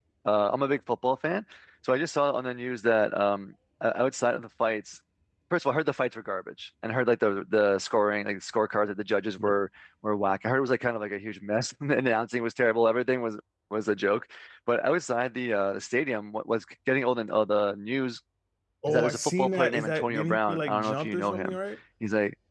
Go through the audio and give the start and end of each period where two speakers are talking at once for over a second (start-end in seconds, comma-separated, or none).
18.9-21.6